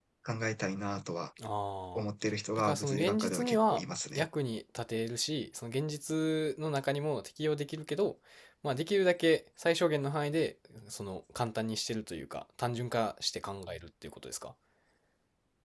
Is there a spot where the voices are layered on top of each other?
Yes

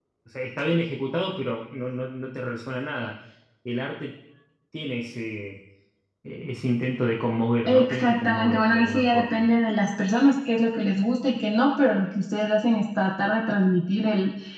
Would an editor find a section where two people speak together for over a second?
Yes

